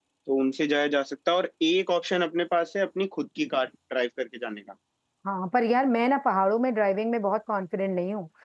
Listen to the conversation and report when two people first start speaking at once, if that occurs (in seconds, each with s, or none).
none